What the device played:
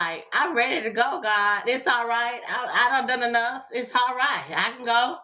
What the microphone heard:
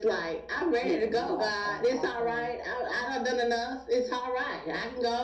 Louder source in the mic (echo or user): echo